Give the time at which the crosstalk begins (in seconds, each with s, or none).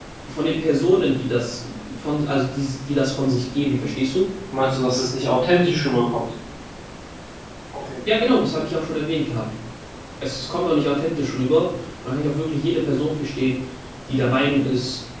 none